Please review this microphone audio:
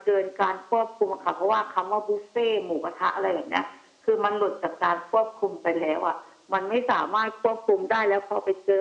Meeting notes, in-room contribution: none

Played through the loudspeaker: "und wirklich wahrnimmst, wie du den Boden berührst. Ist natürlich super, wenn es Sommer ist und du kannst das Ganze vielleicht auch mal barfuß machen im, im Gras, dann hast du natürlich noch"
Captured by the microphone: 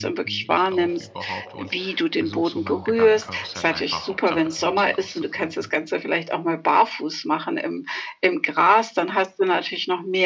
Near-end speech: present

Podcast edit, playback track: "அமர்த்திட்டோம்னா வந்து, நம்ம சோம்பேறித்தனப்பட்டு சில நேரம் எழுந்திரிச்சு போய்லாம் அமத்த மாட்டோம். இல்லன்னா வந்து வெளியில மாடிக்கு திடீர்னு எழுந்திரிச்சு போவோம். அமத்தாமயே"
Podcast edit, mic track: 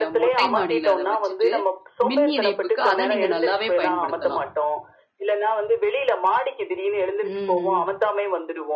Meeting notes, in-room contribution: present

